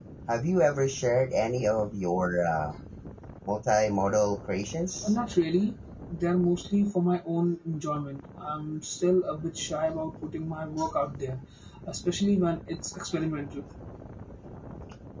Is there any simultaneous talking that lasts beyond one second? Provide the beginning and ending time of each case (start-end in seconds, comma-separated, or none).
none